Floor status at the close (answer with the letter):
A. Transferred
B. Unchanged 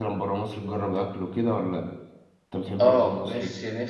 A